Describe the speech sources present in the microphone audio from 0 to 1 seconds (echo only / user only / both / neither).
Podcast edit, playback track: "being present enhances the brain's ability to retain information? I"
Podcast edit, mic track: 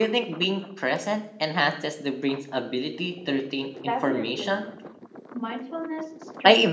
echo only